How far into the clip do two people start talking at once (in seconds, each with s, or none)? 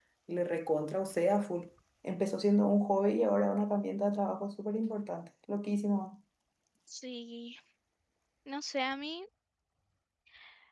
none